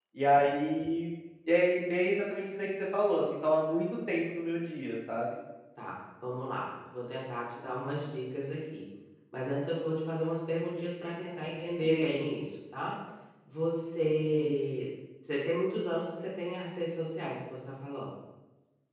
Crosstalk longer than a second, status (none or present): none